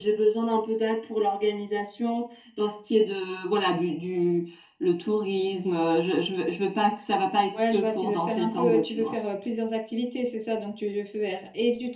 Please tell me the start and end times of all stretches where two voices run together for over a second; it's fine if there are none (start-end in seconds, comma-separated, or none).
7.7-9.1